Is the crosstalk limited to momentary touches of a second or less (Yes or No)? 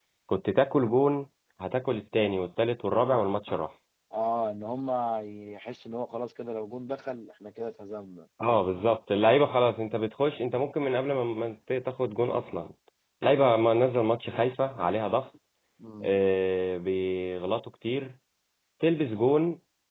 Yes